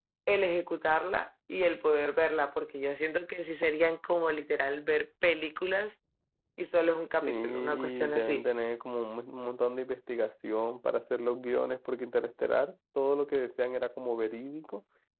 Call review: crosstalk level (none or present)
present